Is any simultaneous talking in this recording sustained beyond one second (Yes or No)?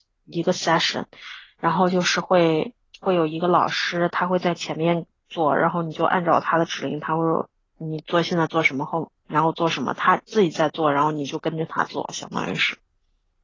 No